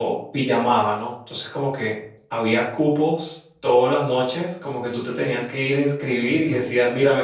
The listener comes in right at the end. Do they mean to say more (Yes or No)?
No